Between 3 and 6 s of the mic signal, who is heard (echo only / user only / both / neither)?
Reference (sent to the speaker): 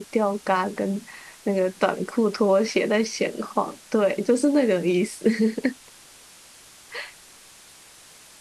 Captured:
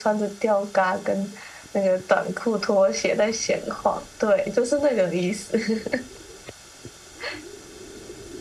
echo only